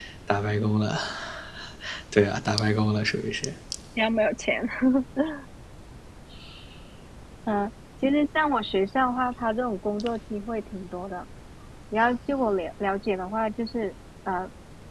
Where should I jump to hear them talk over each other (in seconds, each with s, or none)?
none